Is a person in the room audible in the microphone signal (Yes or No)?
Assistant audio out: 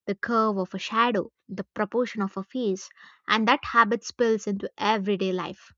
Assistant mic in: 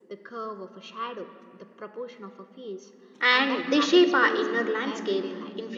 Yes